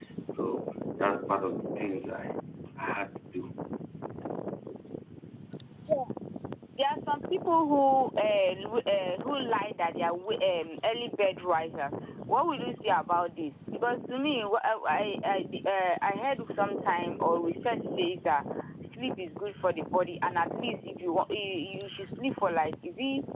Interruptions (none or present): none